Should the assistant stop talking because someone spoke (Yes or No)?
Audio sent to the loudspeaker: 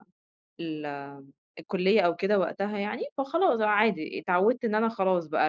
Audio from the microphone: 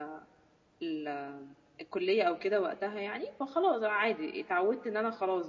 No